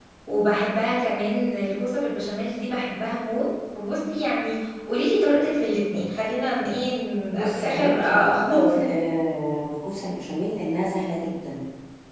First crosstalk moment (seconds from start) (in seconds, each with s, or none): 7.3 s